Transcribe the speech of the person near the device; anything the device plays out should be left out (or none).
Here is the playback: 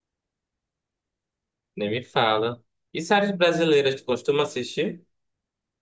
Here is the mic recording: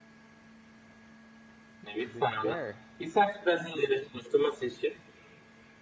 The Bear?